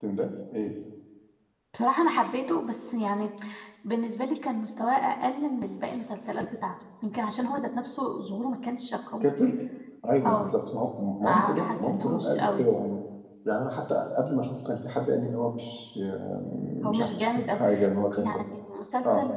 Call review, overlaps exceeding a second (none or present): present